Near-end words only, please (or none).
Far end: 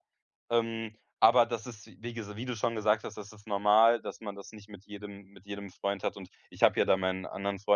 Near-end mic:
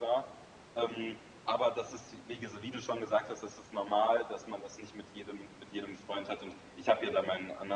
none